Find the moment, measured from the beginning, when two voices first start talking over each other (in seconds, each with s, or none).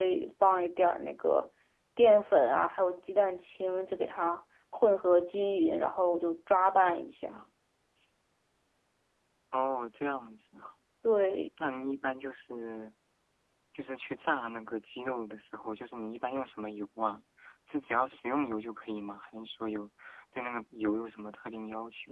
none